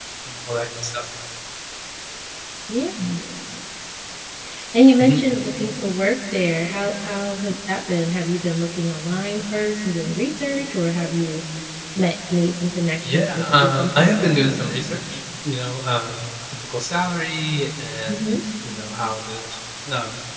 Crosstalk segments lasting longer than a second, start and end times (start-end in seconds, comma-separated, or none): 13.1-14.6